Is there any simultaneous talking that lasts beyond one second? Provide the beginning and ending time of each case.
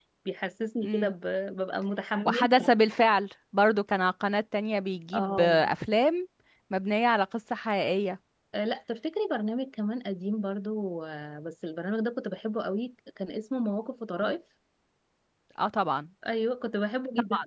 none

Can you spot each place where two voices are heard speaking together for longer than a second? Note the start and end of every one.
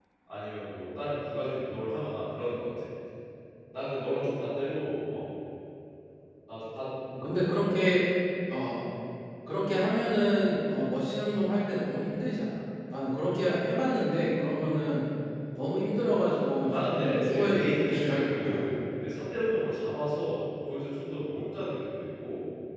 16.7-18.8

